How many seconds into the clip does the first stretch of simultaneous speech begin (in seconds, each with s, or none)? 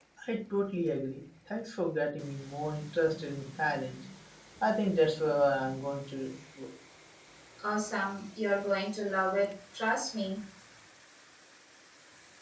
none